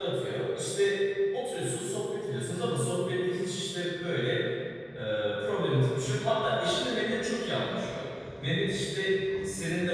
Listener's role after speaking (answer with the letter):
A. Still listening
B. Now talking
A